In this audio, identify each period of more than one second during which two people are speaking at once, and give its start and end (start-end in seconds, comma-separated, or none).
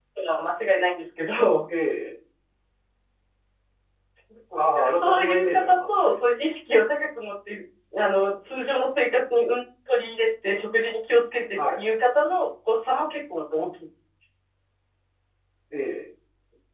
4.7-6.2